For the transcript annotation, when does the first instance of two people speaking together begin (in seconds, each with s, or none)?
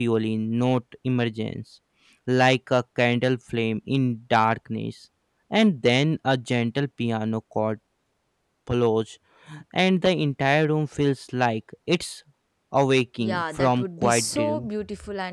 13.2 s